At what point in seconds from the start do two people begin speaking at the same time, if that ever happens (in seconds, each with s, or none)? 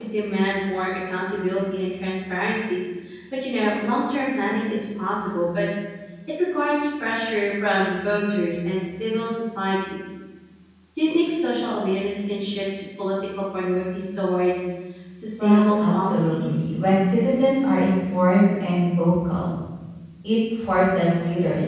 15.4 s